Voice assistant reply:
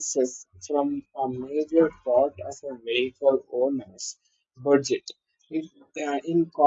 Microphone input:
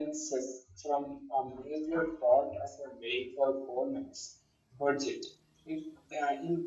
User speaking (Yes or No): No